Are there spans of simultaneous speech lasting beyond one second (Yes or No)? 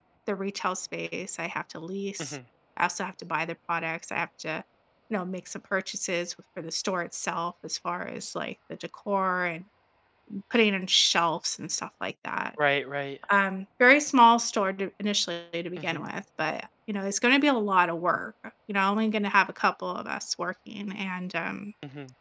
No